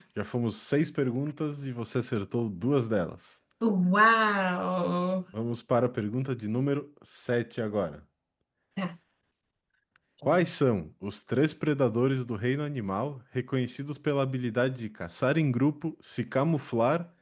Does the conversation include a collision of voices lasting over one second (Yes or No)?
No